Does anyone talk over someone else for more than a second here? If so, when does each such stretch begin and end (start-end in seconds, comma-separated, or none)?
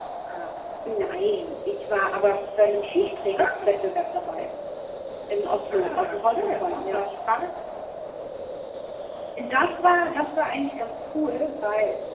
5.7-7.0